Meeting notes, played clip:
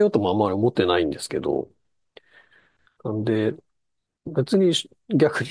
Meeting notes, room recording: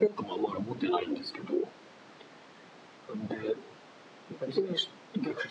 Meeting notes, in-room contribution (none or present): none